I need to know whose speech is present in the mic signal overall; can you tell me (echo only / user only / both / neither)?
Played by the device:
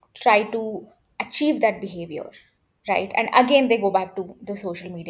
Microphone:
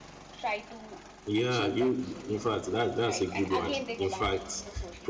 both